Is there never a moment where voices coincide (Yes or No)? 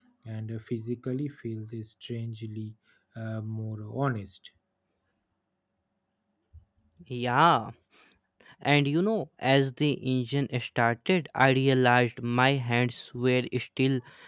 Yes